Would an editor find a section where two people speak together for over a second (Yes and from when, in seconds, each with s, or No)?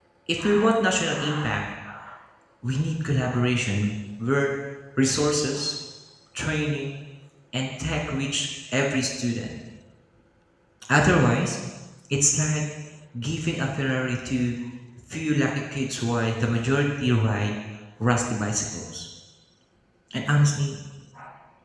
No